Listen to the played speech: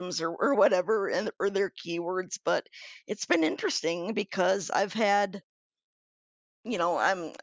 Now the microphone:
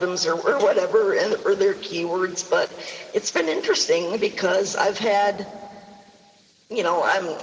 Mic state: echo only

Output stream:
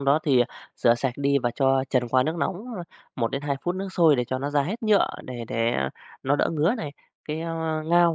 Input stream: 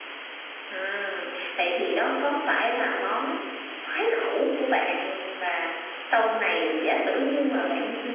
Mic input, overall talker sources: user only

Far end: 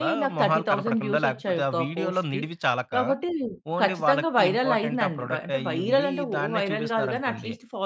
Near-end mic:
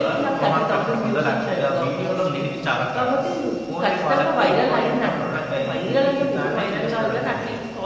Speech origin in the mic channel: echo only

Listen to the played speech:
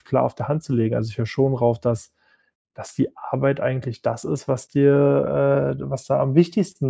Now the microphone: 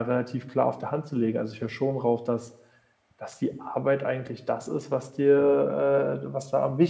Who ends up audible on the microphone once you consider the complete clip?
echo only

